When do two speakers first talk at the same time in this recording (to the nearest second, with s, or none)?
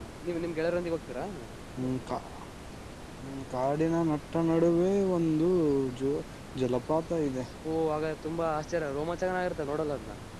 none